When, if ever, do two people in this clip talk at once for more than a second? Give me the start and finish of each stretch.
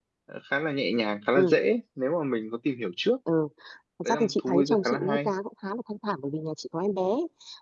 4.0-5.3

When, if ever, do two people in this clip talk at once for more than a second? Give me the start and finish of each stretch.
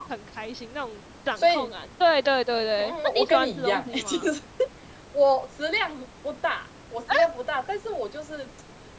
2.8-4.2

